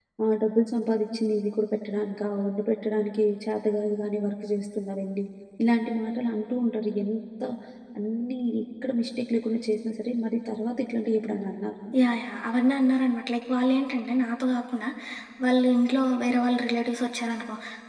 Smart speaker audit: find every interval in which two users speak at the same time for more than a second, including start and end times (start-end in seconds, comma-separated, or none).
none